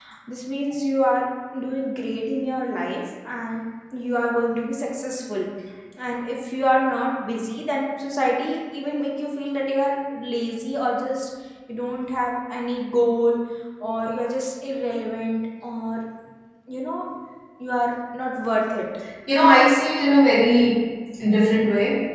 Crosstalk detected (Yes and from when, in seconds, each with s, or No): No